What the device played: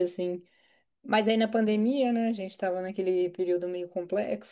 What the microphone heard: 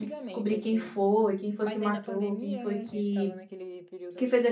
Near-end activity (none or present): present